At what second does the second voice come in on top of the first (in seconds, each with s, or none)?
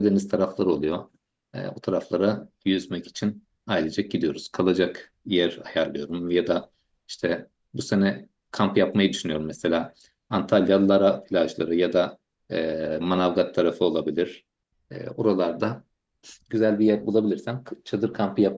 none